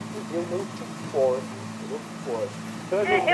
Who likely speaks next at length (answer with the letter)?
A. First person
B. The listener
B